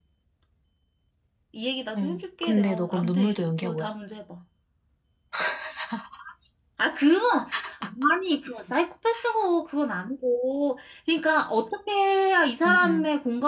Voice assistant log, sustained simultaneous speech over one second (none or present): present